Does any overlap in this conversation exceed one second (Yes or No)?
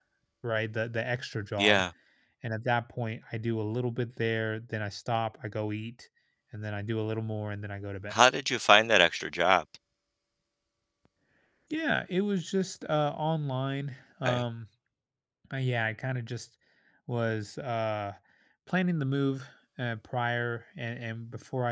No